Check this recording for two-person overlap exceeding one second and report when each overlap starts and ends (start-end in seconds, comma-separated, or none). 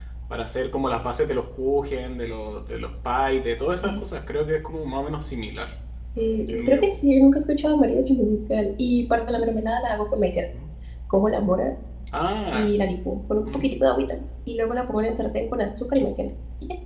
none